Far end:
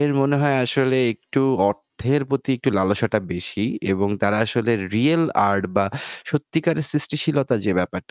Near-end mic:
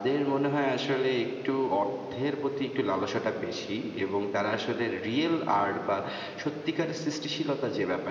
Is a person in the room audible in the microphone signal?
No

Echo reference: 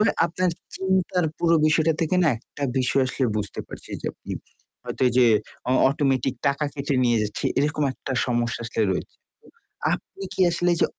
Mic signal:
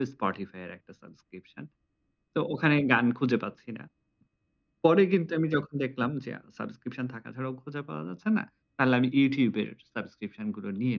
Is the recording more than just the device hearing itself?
Yes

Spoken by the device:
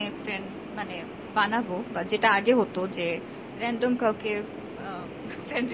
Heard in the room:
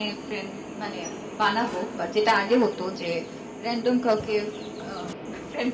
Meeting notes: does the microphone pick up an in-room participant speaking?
No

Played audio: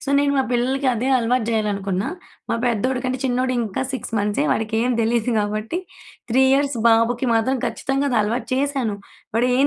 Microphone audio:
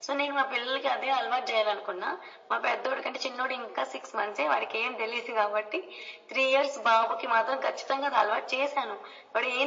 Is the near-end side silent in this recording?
Yes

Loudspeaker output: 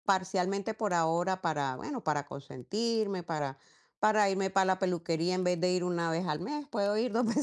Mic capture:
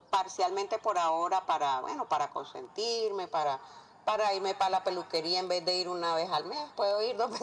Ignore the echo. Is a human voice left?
No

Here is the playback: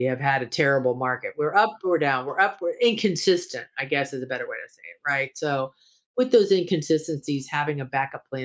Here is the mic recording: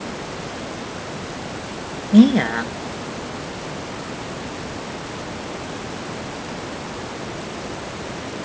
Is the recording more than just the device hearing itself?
Yes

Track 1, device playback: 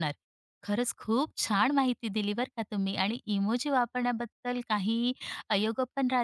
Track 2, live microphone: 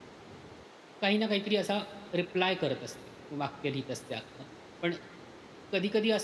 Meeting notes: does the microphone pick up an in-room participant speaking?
Yes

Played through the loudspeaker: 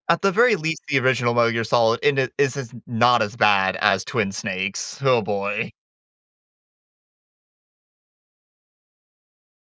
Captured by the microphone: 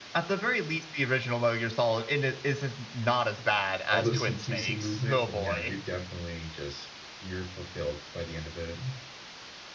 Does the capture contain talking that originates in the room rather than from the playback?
Yes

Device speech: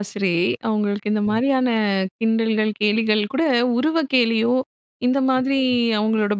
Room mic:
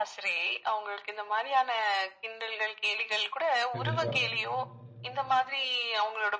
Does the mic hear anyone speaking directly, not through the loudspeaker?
Yes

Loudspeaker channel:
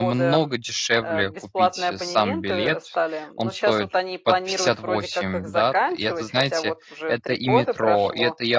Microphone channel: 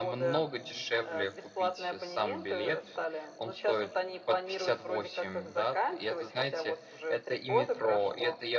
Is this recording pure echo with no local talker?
Yes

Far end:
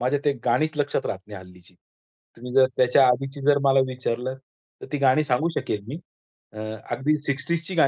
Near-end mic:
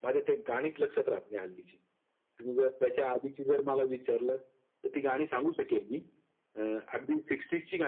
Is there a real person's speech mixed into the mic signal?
No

